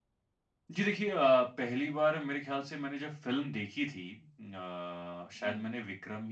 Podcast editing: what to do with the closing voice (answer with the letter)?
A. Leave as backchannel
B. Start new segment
A